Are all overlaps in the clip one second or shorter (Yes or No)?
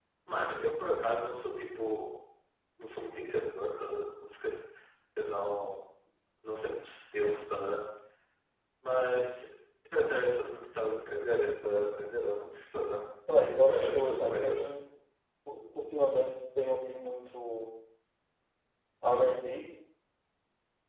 No